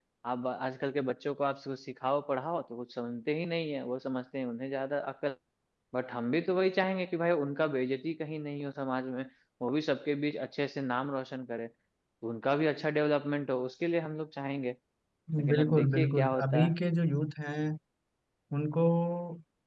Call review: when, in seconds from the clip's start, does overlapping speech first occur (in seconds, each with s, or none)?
15.5 s